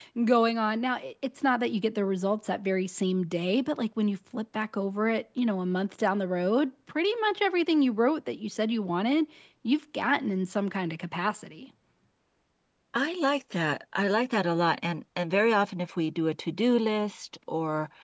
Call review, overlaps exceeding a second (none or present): none